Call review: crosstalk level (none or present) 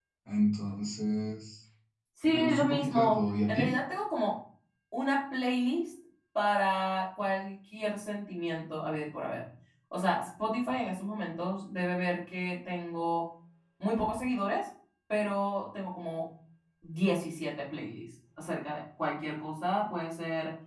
present